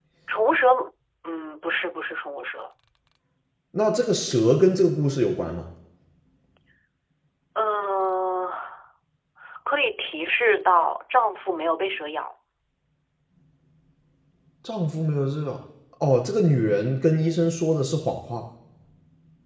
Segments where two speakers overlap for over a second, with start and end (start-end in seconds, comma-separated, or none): none